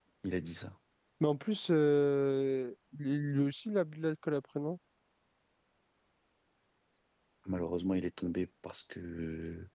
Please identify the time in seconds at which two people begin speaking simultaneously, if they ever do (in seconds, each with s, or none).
none